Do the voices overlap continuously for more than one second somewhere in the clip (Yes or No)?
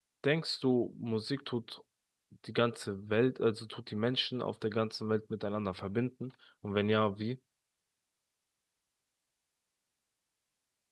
No